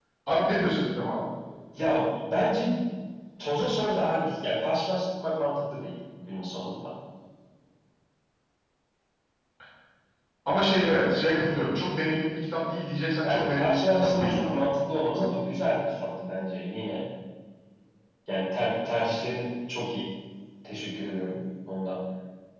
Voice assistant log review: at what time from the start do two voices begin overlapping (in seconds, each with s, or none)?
13.2 s